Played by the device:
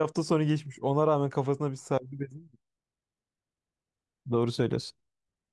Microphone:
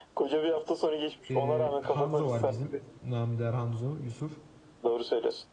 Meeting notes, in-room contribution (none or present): present